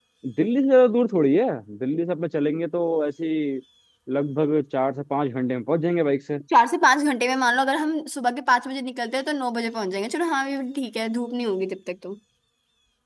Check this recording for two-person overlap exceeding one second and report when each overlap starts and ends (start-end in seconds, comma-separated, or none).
none